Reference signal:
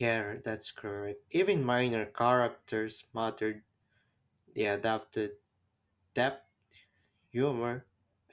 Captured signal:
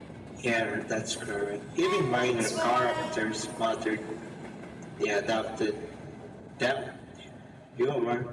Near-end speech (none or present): present